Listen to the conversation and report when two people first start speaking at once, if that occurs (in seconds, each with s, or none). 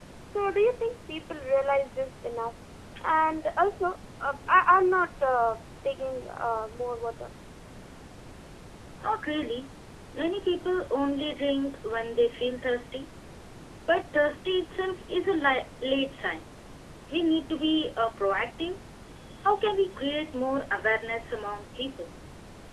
none